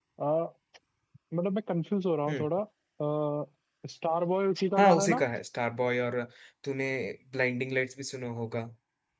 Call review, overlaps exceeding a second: none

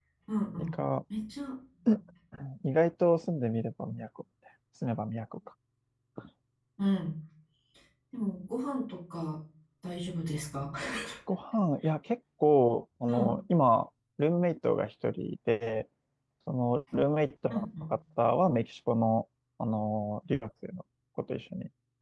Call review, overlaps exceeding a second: none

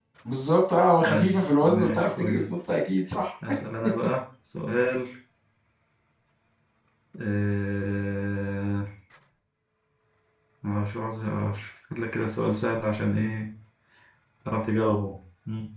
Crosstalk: present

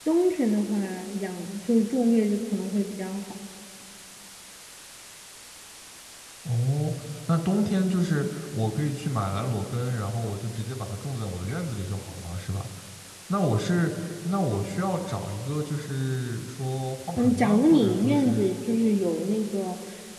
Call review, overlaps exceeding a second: present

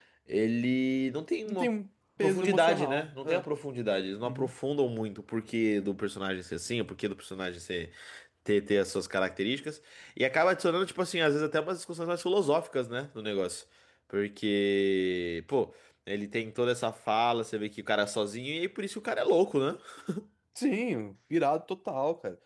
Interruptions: present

